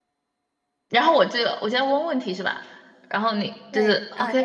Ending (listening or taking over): taking over